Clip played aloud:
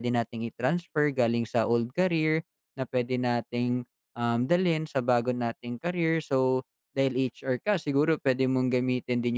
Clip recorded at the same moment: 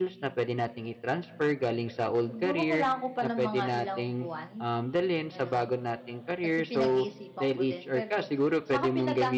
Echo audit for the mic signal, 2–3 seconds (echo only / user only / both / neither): both